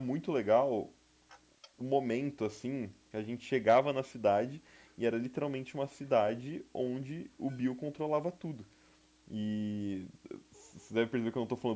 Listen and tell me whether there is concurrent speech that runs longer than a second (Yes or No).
No